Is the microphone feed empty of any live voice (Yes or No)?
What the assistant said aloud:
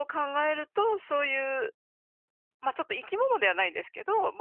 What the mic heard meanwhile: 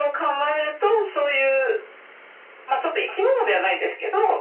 Yes